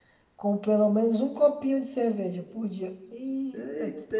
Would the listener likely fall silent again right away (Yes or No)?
No